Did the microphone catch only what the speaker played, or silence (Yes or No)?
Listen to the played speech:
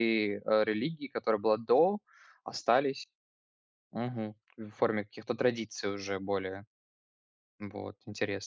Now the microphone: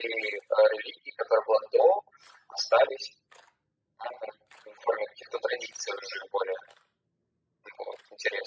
Yes